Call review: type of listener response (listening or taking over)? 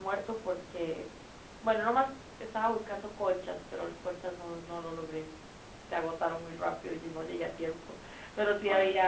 listening